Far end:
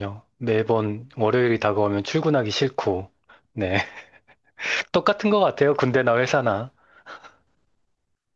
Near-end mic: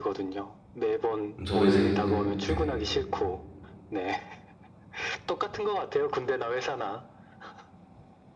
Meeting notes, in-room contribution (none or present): present